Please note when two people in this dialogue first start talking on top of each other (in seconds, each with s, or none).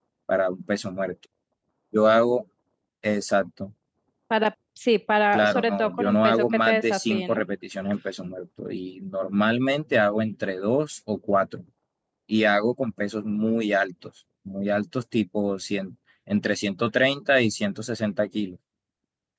5.3 s